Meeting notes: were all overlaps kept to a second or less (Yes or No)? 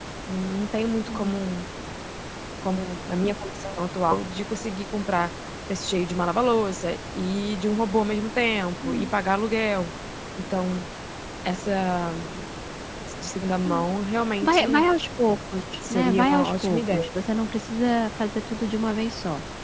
No